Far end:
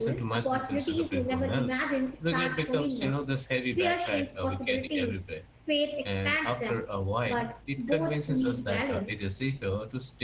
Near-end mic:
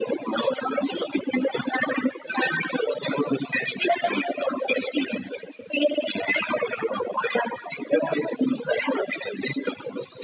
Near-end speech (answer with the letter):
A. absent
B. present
A